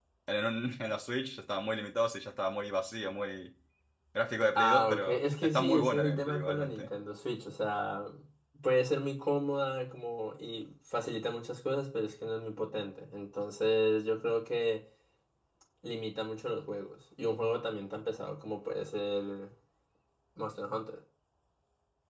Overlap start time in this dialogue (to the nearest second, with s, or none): 5 s